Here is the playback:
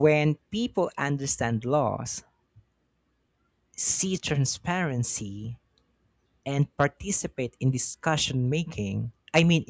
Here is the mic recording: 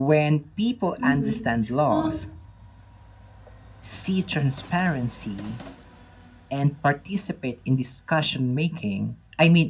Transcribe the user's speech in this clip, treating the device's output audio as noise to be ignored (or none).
hmm Well,